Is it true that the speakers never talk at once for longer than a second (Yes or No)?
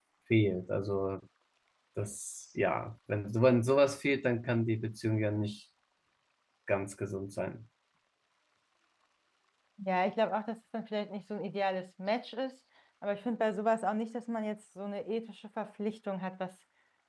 Yes